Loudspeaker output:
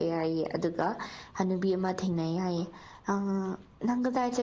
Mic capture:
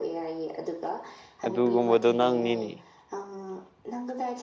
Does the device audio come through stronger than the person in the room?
No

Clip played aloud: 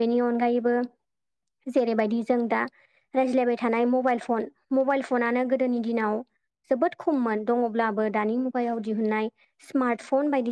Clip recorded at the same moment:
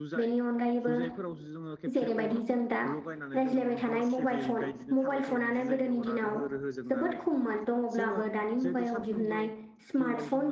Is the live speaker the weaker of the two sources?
Yes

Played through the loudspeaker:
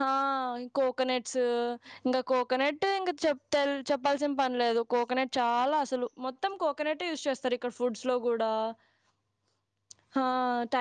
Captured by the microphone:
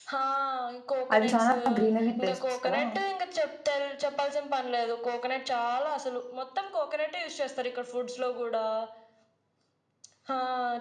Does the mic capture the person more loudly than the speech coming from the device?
Yes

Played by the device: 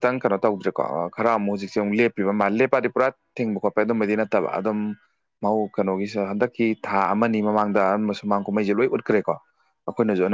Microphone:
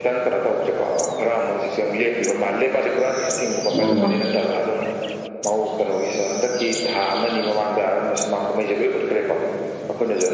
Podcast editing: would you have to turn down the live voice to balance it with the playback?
Yes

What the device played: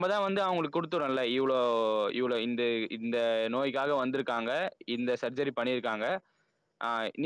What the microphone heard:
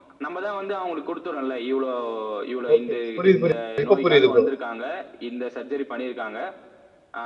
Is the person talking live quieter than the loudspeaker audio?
No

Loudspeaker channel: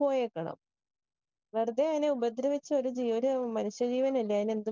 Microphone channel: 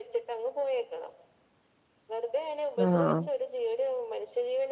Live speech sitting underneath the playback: No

